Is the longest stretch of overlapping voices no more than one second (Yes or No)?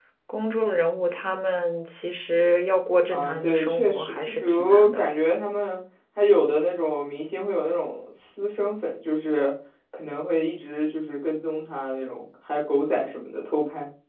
No